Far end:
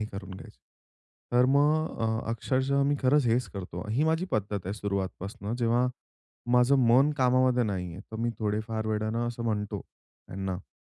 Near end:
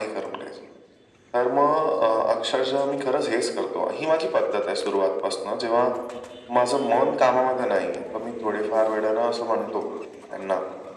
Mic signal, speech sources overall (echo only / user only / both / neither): echo only